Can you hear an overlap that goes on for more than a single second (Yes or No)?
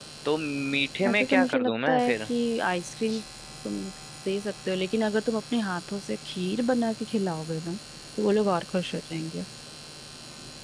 Yes